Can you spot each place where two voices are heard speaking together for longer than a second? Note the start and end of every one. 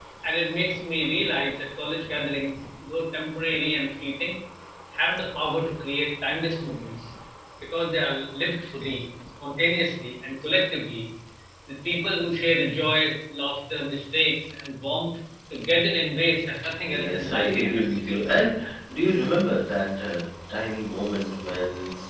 16.9-18.2

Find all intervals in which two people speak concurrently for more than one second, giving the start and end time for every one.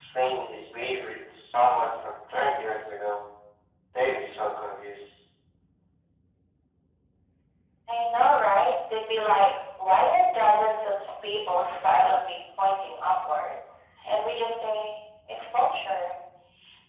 none

